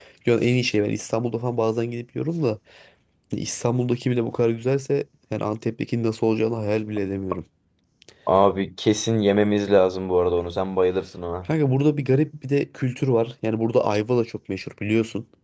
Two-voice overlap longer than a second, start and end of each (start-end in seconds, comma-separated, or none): none